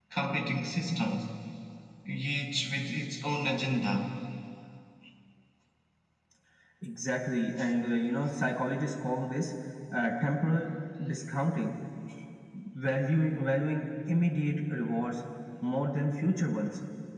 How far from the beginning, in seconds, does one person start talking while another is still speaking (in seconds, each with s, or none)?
none